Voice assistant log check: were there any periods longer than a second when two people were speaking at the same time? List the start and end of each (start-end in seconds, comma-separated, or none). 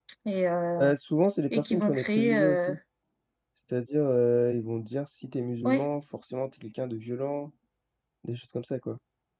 1.5-2.8